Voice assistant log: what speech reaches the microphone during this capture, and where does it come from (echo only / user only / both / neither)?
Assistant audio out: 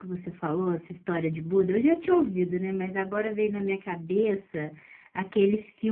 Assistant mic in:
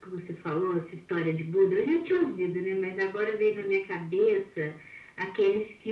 echo only